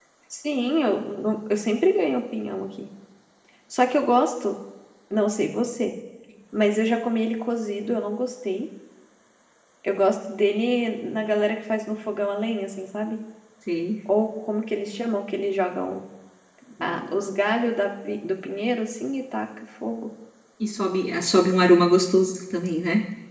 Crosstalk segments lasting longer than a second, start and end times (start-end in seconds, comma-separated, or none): none